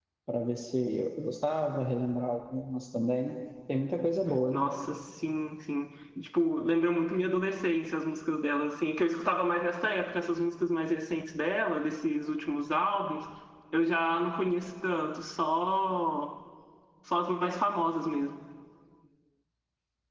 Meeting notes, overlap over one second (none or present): none